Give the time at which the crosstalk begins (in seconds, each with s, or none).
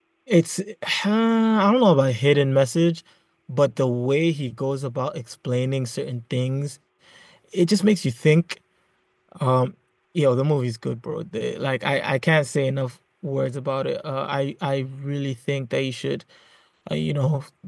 none